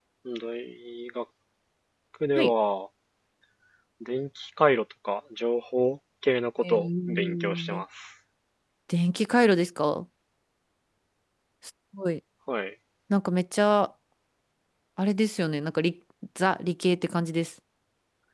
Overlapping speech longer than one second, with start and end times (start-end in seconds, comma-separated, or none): 6.6-7.8